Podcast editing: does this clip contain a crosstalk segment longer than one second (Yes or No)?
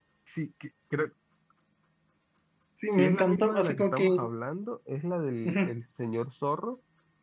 Yes